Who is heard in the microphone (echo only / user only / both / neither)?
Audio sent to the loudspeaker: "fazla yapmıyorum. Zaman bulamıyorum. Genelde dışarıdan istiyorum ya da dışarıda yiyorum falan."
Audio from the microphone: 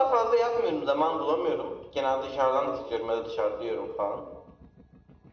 echo only